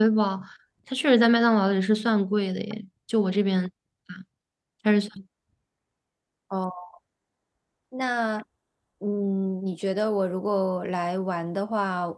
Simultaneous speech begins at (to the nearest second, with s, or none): none